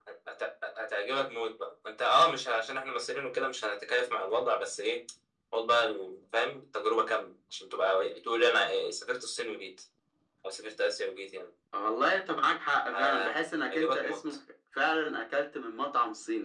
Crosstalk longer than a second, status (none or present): present